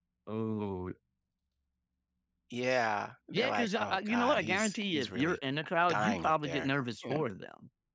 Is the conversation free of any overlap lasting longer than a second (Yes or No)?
No